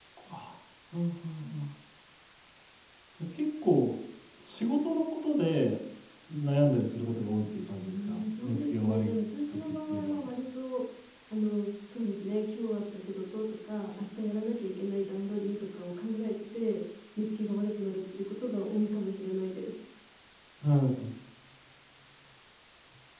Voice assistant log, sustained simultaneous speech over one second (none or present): present